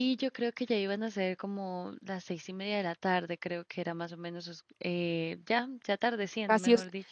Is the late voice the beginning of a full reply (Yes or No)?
Yes